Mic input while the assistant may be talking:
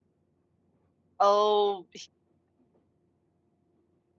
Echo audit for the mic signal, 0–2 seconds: user only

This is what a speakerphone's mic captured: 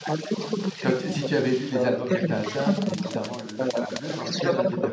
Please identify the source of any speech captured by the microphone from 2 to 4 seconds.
both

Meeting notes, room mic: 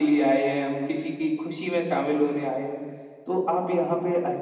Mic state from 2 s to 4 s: echo only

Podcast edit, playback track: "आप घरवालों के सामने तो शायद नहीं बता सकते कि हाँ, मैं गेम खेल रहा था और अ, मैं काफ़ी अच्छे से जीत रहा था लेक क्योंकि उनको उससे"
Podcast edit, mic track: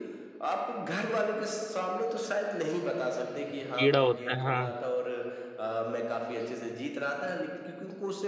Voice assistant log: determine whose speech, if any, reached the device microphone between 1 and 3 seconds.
echo only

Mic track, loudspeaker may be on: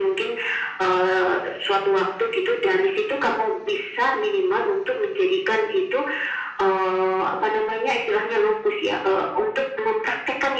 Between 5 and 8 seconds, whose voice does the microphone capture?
echo only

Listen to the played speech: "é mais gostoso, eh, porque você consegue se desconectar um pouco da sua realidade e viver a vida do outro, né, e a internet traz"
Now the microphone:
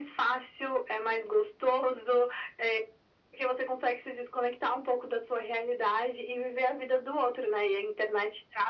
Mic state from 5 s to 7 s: echo only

